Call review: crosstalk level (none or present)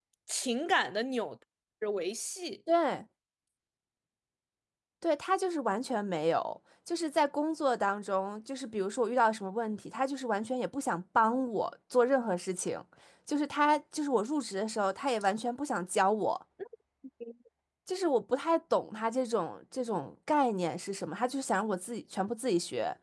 none